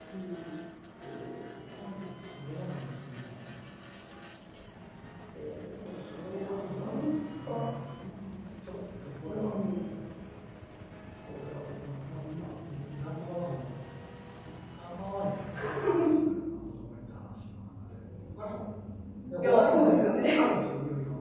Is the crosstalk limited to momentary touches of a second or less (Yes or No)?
No